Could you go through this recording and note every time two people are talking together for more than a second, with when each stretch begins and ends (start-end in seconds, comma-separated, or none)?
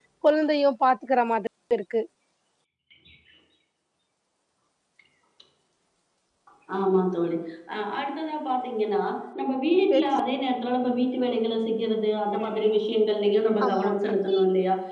none